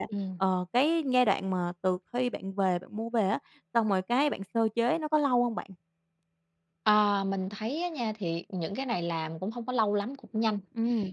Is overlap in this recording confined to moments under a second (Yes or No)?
Yes